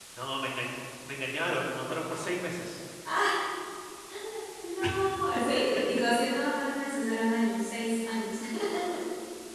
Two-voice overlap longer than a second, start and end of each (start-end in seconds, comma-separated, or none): none